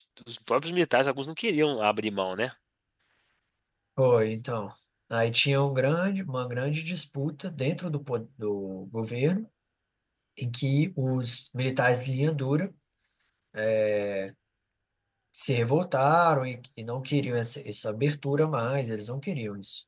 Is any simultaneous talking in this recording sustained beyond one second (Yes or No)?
No